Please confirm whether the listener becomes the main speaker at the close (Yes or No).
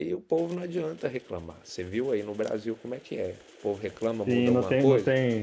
Yes